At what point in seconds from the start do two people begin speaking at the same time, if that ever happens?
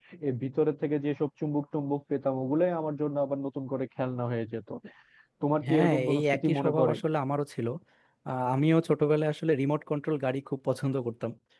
5.7 s

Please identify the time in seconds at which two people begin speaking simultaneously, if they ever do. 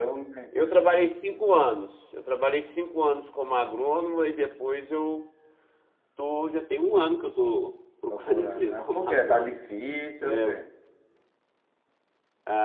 8.1 s

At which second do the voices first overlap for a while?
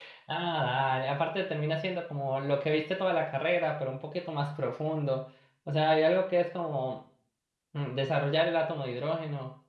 none

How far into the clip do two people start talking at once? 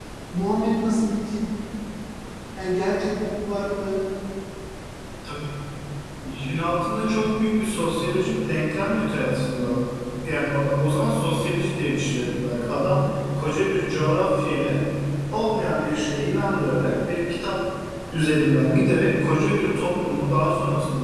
none

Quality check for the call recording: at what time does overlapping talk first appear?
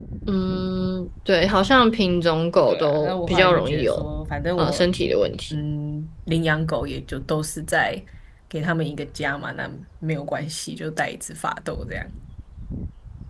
2.7 s

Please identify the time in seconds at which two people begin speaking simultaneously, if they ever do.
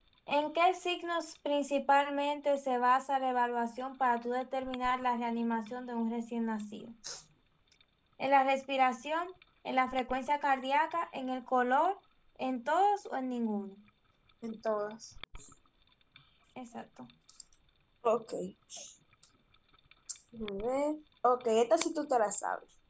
none

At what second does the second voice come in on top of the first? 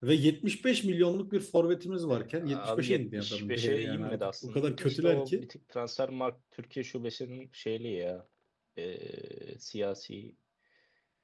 2.1 s

